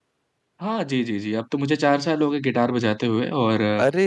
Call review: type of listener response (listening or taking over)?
listening